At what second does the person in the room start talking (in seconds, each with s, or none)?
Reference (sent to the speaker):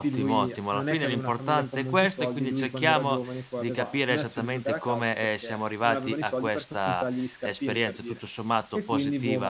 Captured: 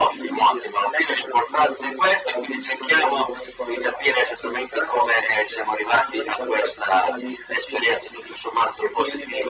none